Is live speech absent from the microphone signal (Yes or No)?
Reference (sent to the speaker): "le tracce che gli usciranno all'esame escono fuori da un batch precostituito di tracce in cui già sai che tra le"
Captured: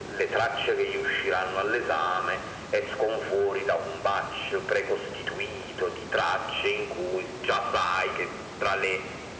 Yes